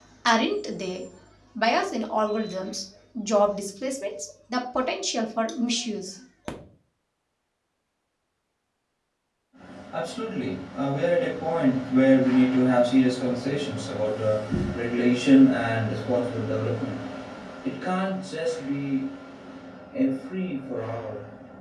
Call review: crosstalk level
none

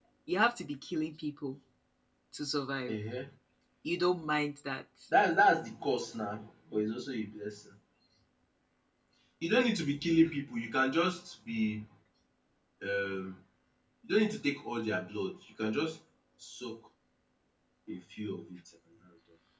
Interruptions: none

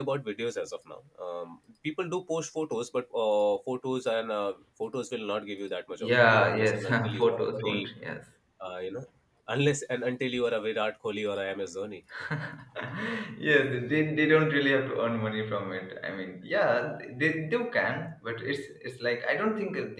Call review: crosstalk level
present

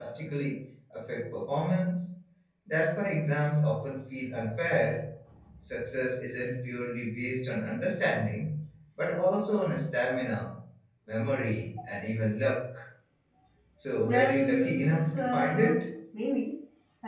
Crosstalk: present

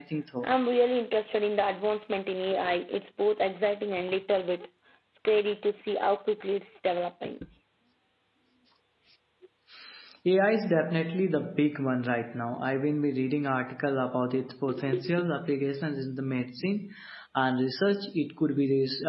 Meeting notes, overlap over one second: none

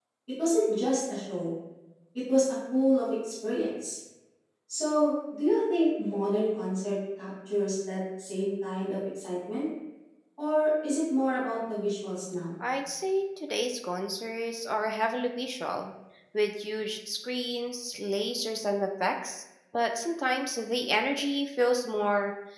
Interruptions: none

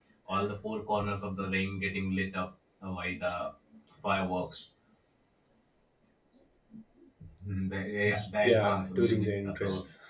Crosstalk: present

